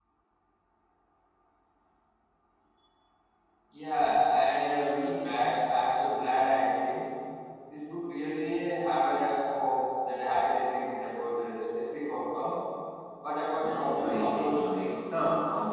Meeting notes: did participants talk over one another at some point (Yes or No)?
Yes